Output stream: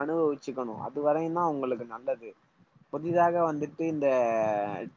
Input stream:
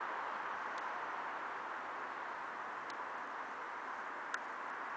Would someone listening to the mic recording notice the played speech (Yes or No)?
No